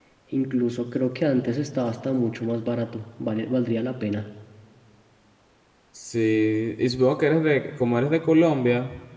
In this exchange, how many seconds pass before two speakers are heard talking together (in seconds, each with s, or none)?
none